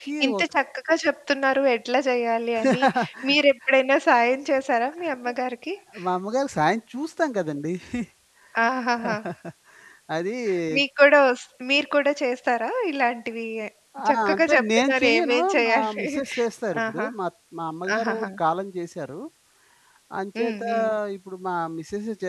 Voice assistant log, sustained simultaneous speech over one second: present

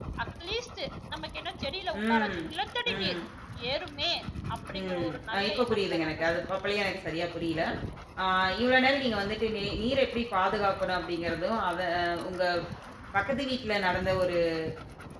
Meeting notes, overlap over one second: present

